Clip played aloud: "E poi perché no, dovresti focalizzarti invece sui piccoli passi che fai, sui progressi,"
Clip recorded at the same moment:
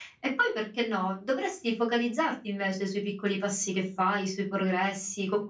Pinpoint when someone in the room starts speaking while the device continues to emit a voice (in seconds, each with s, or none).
none